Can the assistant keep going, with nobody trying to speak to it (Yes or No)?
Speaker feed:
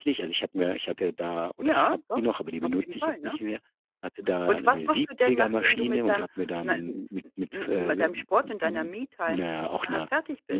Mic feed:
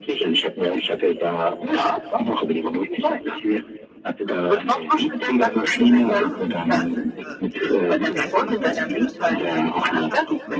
No